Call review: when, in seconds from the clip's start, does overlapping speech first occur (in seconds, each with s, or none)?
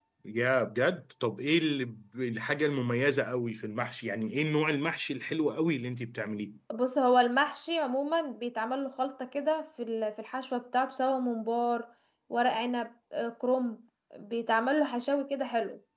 none